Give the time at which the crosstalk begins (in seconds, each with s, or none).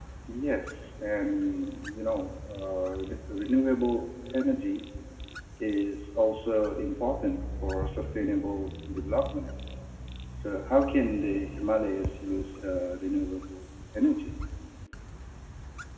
none